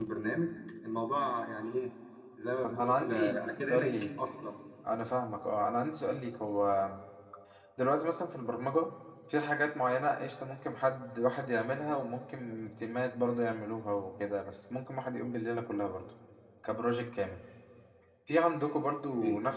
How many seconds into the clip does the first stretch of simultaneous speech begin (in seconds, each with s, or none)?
2.6 s